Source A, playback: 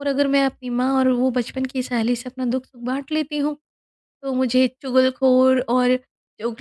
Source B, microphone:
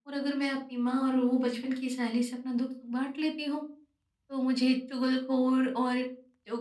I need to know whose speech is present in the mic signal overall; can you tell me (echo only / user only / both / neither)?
echo only